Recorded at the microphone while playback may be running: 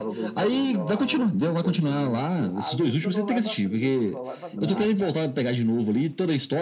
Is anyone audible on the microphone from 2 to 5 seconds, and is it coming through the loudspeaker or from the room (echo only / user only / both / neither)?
both